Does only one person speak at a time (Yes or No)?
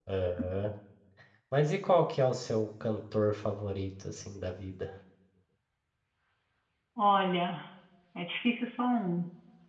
Yes